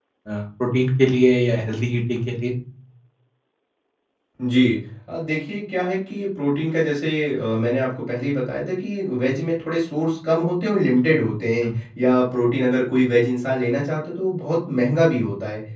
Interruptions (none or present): none